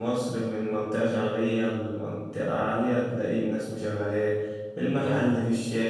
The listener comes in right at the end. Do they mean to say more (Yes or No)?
No